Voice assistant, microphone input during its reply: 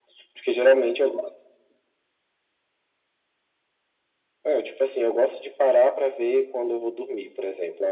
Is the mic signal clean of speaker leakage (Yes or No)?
No